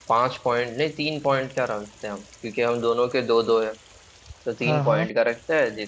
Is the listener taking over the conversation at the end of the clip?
No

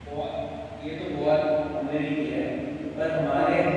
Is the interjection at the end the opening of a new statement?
No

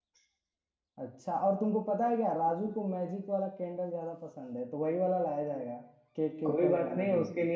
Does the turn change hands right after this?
Yes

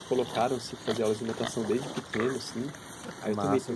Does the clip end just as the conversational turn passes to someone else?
No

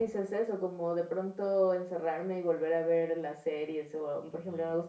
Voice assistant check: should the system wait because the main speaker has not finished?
Yes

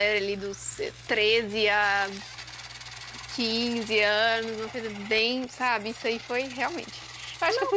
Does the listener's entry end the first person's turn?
No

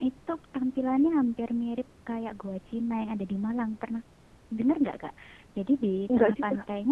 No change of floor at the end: Yes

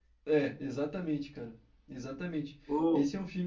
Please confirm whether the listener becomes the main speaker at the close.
No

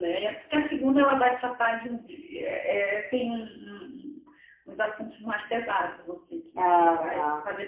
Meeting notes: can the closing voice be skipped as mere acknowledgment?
Yes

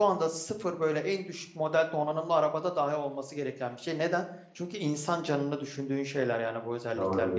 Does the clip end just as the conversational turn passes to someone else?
Yes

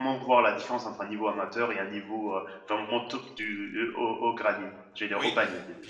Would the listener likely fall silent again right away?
No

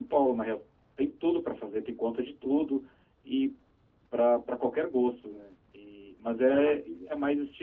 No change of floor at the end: Yes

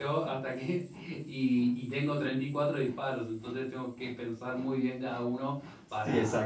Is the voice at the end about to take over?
Yes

